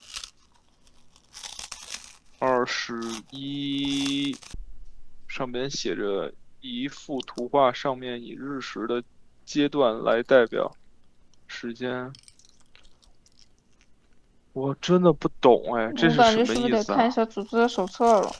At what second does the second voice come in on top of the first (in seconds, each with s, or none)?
15.9 s